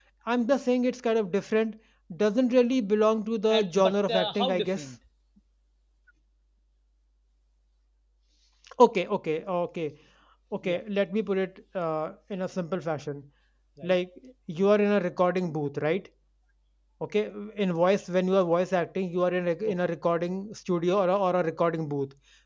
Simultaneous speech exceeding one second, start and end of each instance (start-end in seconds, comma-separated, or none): 3.5-4.9